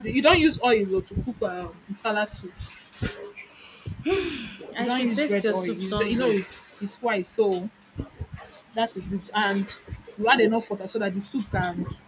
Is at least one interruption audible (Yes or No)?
Yes